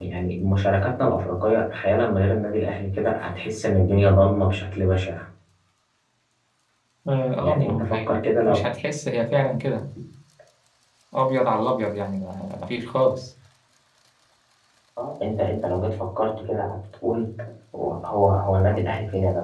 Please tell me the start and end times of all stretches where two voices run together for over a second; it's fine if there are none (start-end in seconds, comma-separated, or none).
7.4-8.6